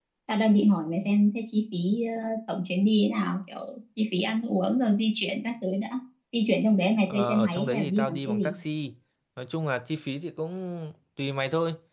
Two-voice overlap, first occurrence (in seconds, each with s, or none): 7.1 s